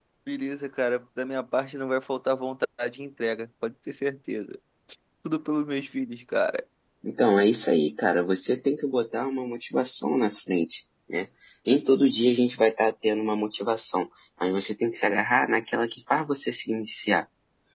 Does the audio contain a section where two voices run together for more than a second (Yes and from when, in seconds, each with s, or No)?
No